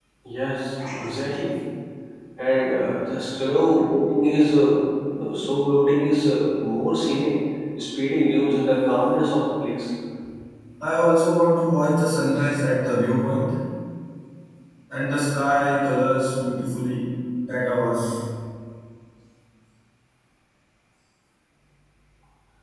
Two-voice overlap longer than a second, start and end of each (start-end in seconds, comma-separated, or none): none